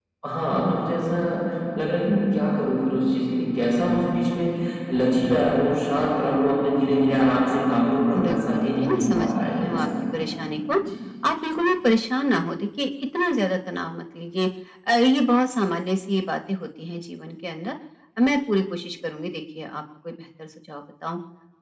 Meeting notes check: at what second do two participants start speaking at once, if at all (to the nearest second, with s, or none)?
8 s